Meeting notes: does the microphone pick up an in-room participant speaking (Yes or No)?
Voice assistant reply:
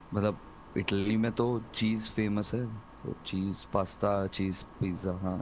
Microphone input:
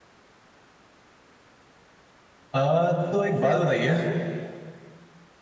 Yes